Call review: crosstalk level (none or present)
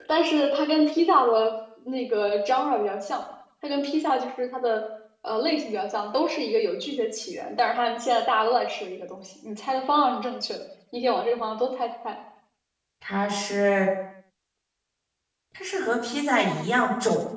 none